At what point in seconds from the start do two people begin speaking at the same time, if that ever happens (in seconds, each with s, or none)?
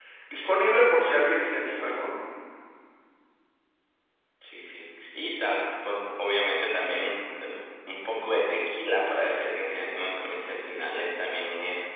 none